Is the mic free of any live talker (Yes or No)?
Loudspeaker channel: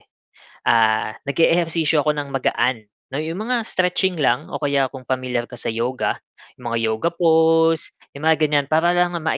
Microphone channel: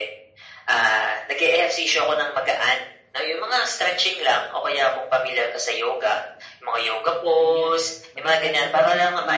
No